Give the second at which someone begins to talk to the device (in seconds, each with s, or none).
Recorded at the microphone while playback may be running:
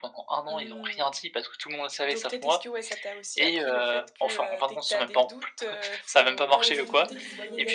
6.5 s